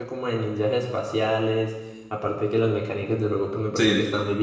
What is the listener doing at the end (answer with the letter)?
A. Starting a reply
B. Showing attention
A